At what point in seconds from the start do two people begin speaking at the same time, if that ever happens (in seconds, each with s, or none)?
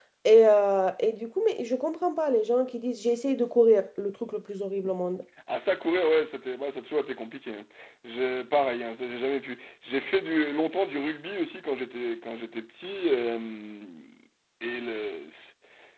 none